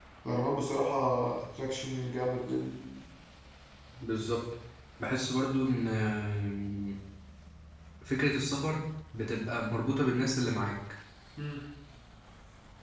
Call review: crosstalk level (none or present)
none